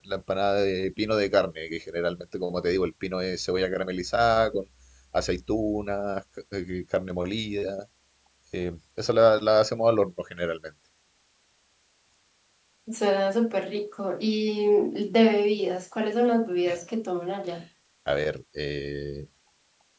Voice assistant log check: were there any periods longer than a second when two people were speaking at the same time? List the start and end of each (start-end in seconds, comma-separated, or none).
none